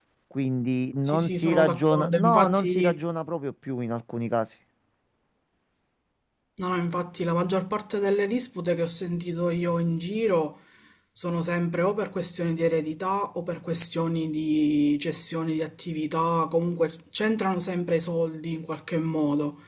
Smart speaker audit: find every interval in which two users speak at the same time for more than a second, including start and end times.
1.0-3.0

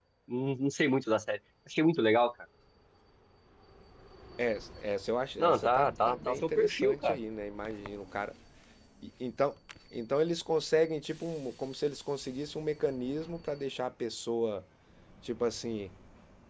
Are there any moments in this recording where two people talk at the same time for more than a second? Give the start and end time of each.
5.4-7.2

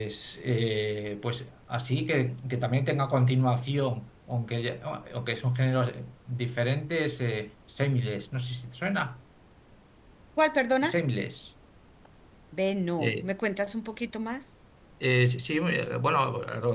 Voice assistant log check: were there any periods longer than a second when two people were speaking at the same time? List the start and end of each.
none

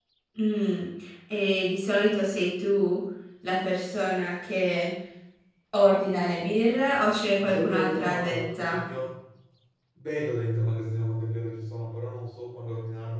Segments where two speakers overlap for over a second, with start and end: 7.4-8.8

